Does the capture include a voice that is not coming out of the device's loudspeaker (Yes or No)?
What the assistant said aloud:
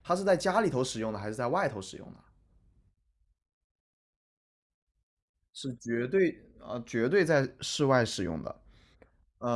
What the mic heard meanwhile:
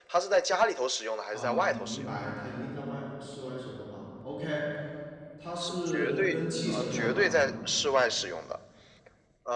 Yes